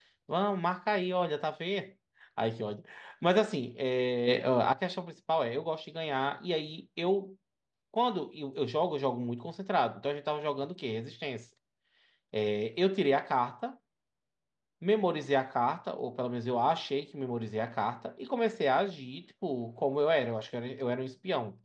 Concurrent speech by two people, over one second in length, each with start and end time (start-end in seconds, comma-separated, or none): none